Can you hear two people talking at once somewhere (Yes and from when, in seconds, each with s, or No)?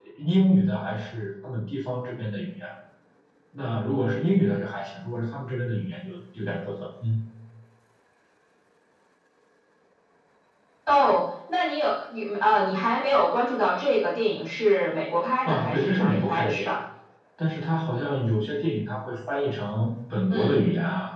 Yes, from 15.4 s